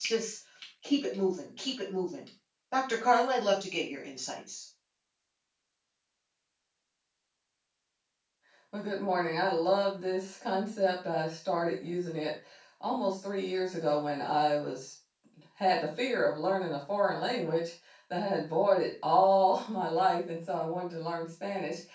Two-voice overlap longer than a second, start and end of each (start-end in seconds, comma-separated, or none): none